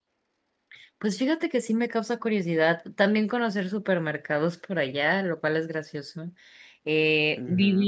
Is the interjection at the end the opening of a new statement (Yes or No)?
Yes